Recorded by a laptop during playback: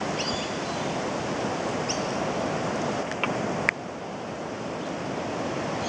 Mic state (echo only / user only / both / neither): neither